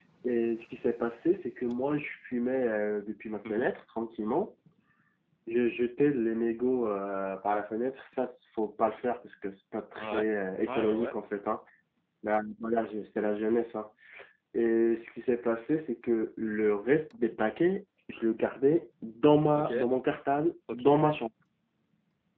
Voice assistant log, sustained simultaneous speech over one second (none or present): none